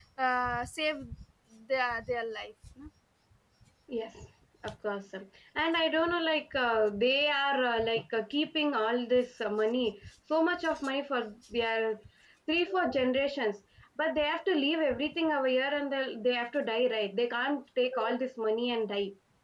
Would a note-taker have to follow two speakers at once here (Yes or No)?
No